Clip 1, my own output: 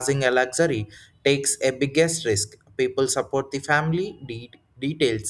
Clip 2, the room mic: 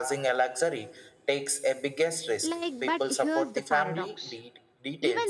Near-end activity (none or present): present